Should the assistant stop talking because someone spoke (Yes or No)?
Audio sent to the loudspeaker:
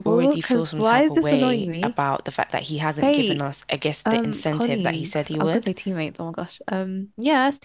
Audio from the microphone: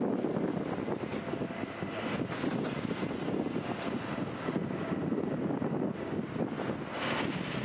No